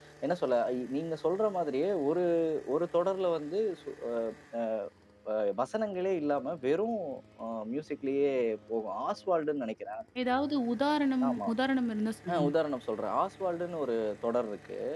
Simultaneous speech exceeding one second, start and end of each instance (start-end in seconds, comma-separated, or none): none